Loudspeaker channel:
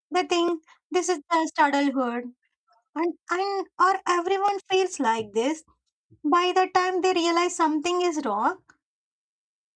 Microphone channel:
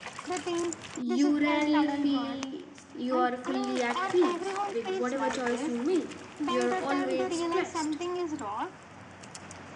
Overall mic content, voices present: both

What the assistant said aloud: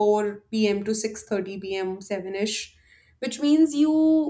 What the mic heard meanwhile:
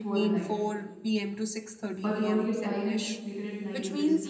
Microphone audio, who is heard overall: both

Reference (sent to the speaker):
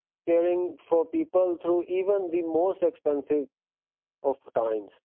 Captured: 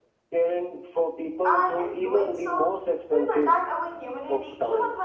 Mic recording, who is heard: both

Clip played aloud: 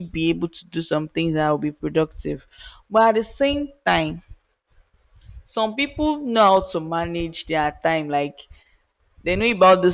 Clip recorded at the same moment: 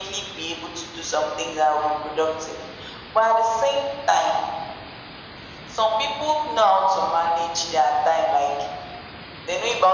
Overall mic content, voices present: echo only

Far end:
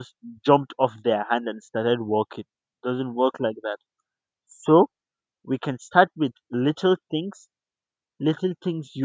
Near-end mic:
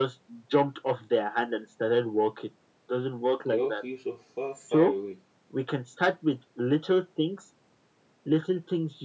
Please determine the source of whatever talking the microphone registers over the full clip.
both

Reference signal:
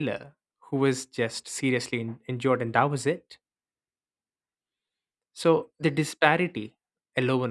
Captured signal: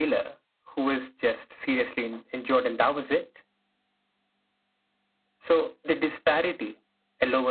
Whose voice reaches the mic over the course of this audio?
echo only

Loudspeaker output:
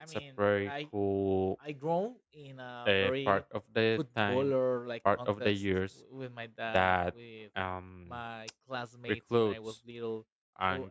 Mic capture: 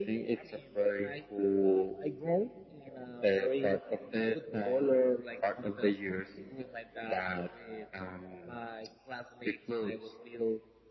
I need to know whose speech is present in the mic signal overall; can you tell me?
echo only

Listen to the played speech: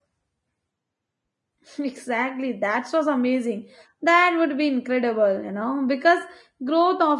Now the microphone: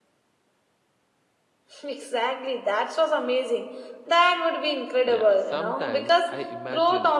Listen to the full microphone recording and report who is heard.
both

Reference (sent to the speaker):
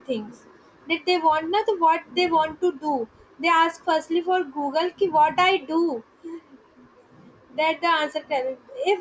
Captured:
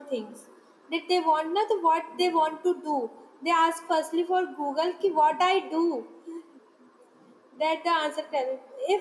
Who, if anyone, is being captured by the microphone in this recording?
echo only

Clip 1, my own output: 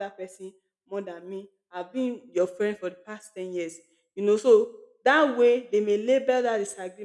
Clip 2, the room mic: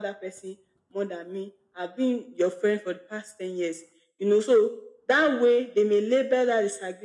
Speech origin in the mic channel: echo only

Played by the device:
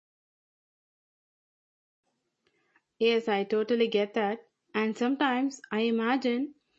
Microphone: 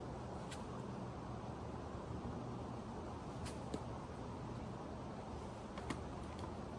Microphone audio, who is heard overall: neither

